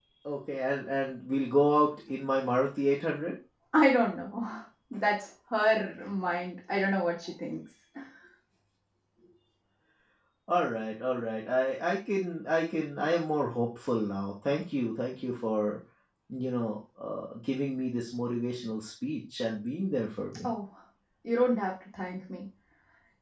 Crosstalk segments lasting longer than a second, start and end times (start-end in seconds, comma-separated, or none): none